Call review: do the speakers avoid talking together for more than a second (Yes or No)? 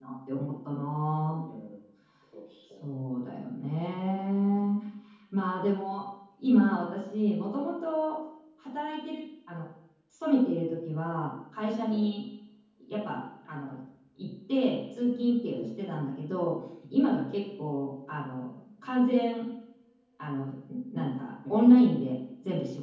Yes